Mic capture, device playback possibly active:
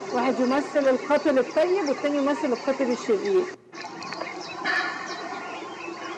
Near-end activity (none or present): none